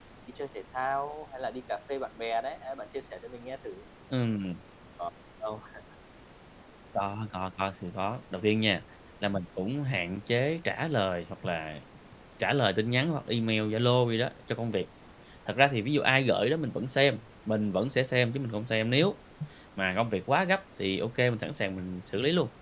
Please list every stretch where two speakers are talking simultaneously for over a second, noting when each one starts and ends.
none

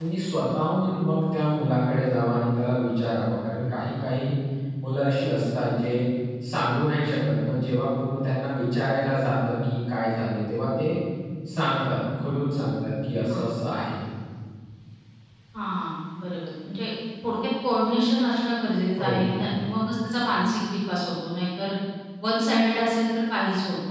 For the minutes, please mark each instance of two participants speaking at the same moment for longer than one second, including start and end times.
none

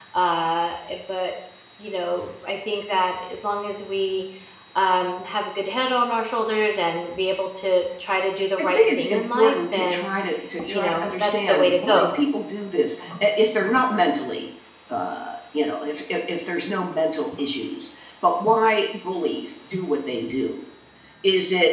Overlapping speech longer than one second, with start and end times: 8.6-10.0, 10.7-12.1

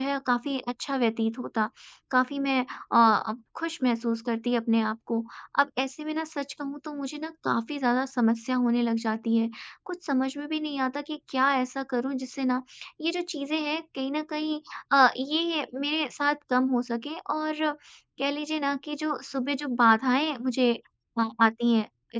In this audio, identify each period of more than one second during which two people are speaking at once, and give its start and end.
none

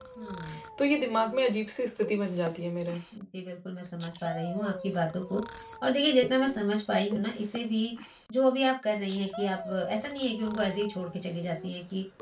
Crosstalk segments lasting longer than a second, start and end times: none

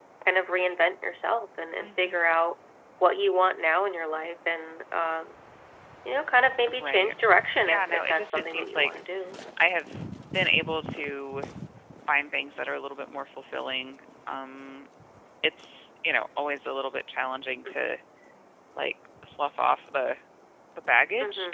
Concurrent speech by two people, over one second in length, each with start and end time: 7.7-8.9

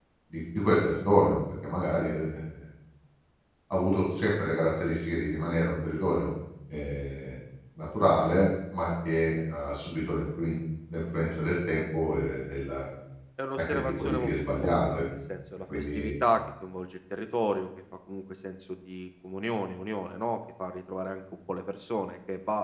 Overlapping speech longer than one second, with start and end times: 13.7-15.0

